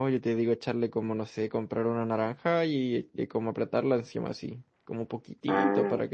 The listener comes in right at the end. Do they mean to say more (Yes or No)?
No